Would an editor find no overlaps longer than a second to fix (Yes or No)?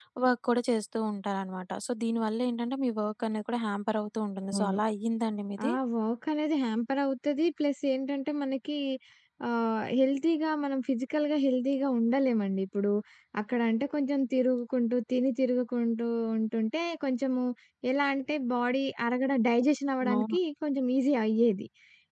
Yes